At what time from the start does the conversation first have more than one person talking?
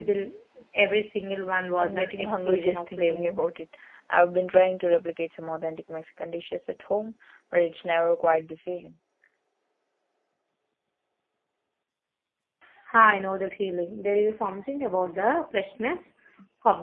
1.8 s

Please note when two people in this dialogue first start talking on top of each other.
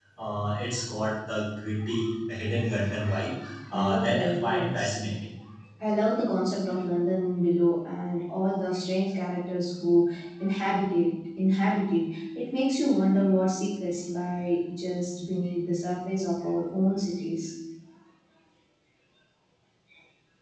3.7 s

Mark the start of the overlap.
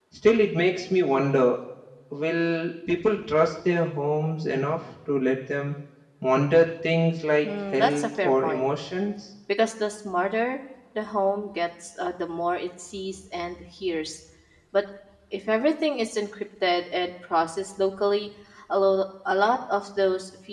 7.4 s

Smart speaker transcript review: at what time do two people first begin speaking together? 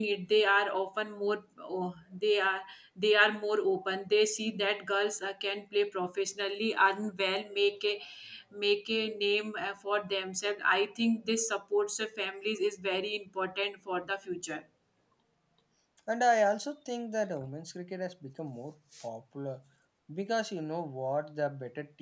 none

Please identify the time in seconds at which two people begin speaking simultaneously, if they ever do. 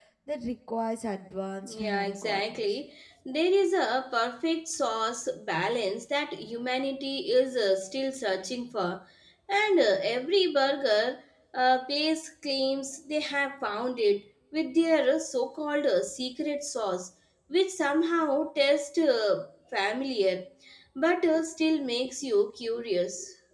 1.6 s

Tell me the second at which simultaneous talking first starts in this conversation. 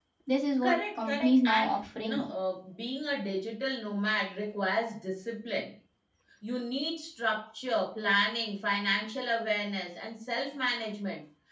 0.6 s

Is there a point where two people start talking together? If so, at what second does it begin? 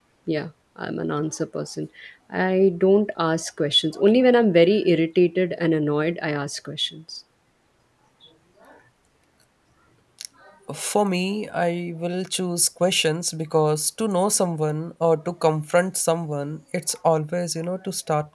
none

